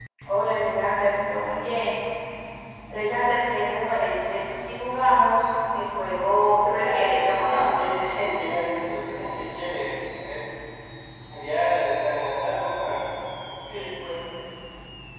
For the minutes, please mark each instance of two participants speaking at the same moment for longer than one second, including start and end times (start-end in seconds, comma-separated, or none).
6.7-8.0